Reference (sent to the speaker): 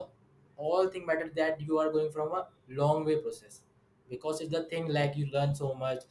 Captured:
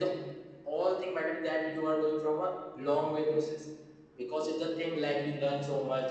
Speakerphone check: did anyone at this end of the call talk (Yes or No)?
Yes